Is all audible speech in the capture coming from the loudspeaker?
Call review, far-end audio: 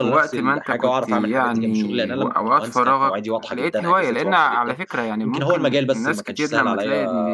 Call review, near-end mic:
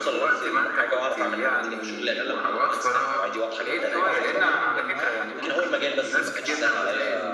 No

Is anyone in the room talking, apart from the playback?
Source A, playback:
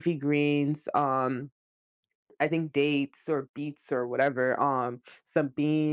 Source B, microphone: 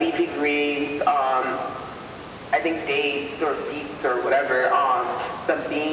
No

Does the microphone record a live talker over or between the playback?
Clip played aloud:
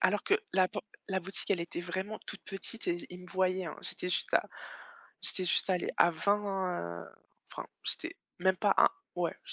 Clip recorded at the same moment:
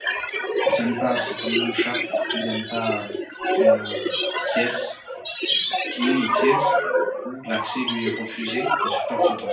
Yes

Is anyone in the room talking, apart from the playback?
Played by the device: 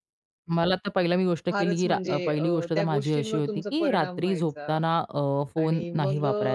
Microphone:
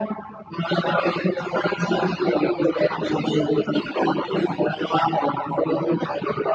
No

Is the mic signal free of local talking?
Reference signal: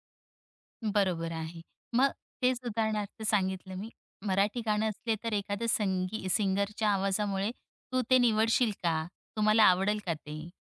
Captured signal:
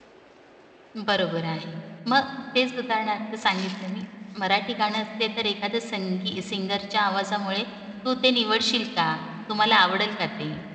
Yes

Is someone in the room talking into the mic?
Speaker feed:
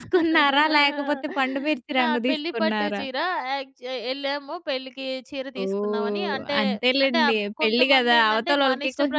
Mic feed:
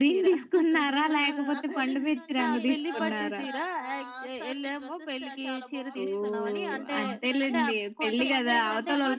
Yes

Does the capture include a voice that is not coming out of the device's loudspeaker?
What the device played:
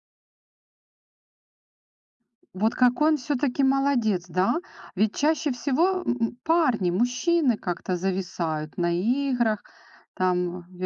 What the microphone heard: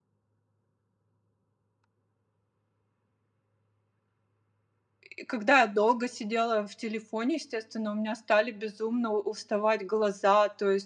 Yes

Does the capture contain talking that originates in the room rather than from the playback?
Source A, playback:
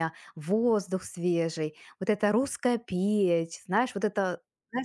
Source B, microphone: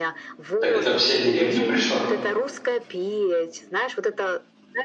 Yes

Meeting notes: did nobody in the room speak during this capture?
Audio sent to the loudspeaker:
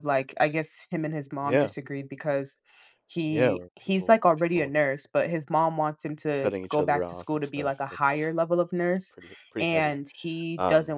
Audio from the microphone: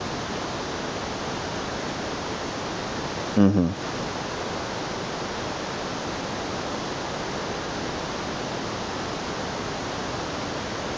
No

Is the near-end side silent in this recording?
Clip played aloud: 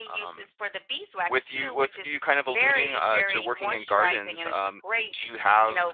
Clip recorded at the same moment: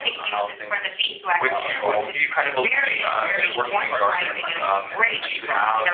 No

